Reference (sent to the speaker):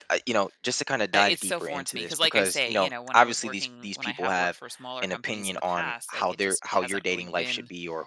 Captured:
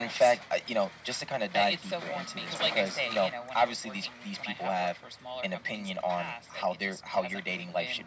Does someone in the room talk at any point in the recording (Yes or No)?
No